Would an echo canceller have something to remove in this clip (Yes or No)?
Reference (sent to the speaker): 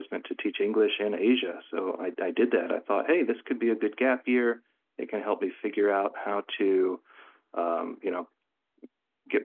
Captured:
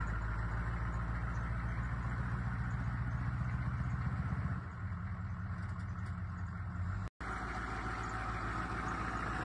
No